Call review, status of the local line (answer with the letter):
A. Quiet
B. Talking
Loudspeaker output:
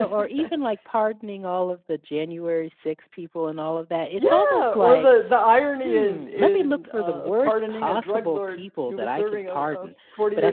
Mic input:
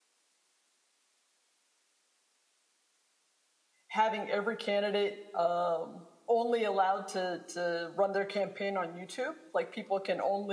B